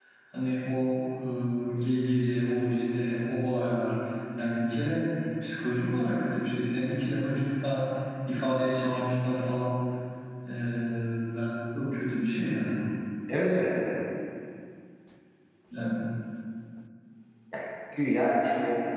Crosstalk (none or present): none